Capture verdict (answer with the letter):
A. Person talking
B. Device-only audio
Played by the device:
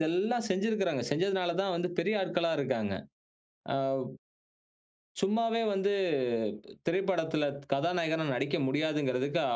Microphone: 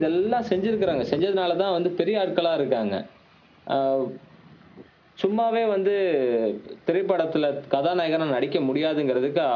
B